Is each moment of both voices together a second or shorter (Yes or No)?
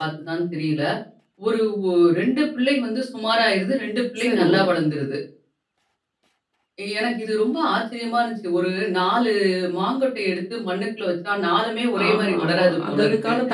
No